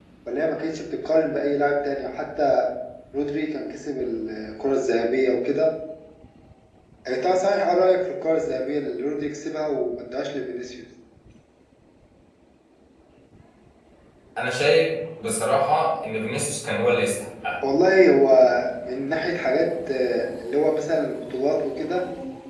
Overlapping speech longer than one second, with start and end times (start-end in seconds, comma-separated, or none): none